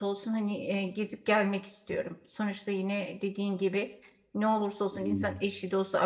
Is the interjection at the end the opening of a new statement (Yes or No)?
No